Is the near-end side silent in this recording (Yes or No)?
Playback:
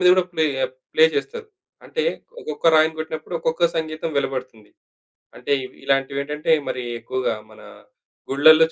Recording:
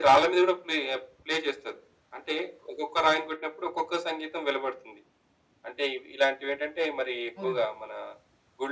No